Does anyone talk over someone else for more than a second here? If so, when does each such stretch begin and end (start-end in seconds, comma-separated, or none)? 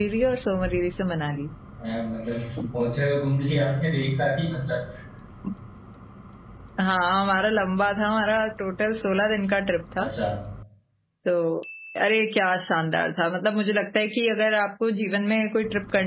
none